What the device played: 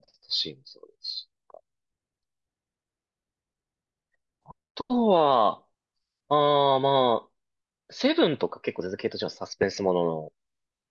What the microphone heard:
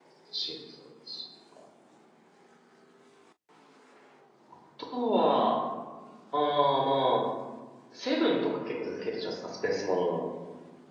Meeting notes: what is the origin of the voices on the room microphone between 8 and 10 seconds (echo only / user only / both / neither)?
echo only